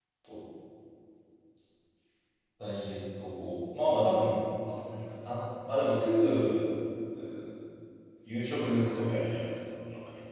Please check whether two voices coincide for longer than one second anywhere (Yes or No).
No